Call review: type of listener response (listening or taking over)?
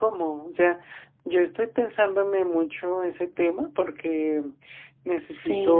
listening